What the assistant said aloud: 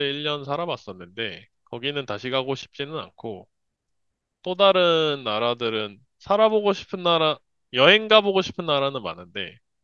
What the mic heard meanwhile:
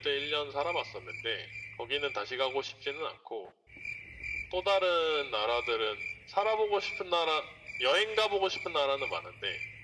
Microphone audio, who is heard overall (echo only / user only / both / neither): echo only